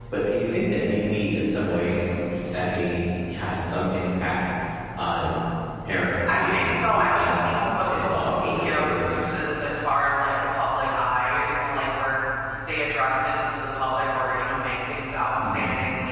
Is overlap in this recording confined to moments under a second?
No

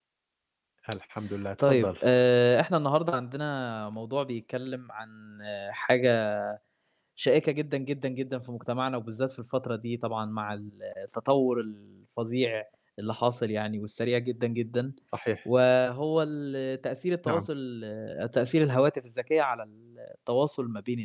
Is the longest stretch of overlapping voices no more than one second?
Yes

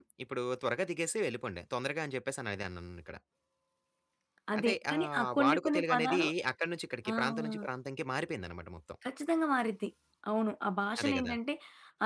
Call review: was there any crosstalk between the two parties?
Yes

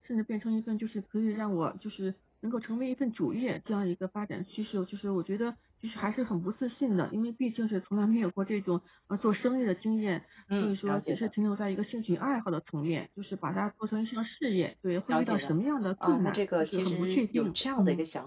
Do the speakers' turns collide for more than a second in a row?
Yes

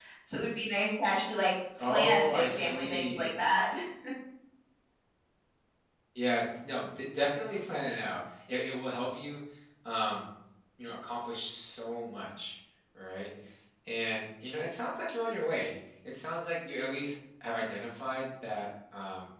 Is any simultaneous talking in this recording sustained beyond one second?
Yes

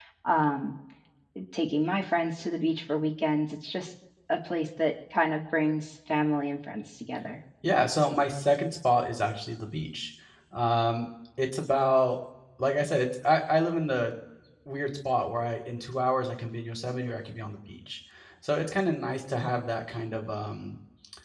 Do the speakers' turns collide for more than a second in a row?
No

